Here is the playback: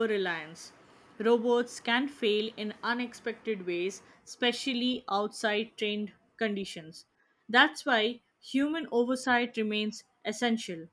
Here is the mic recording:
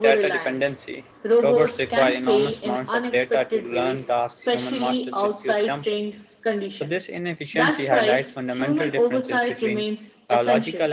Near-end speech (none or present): present